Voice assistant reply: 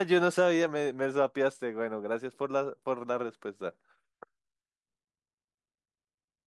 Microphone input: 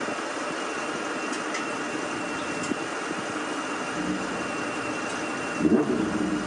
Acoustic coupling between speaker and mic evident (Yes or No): No